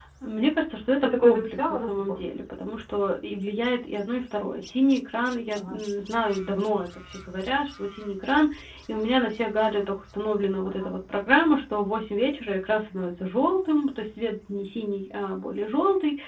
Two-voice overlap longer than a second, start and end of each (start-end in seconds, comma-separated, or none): 1.0-2.2